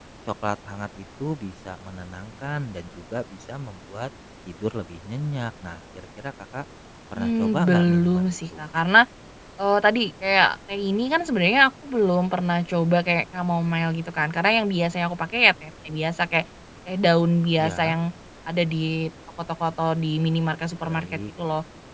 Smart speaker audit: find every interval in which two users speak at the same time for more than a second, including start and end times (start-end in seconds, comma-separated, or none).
7.2-8.6